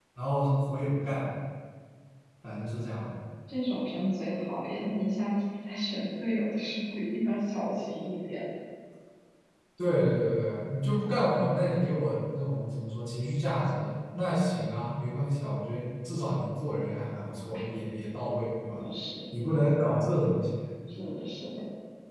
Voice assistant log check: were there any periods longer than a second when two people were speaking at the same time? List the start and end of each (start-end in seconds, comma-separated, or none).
none